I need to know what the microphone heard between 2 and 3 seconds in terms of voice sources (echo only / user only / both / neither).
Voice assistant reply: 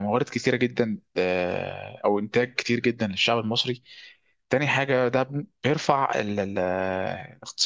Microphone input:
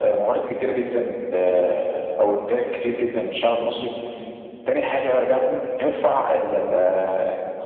echo only